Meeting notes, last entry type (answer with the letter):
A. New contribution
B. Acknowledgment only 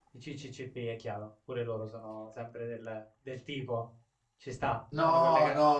A